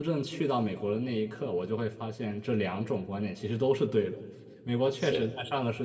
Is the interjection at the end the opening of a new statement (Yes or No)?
No